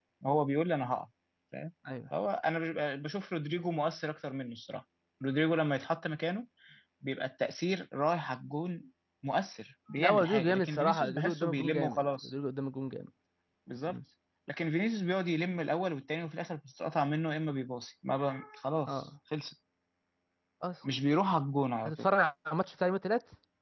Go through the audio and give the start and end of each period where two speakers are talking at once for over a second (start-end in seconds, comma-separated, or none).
10.0-12.3